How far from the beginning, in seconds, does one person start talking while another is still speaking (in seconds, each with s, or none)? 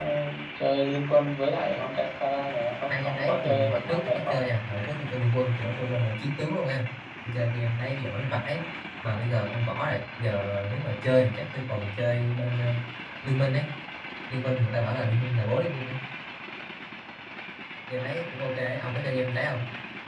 2.9 s